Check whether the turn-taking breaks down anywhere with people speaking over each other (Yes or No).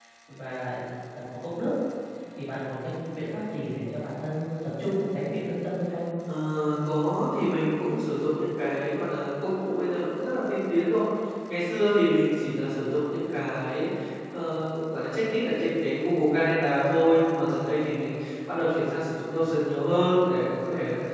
No